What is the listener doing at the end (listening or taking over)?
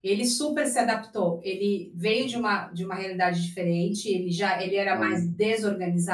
listening